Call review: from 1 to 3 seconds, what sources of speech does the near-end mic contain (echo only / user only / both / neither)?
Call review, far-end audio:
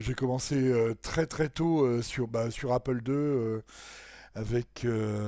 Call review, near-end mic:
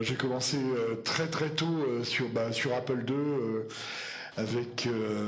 echo only